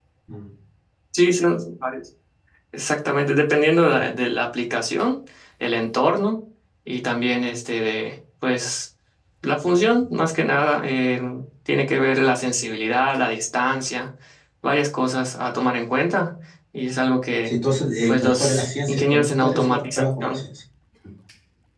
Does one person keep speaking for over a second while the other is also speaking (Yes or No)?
Yes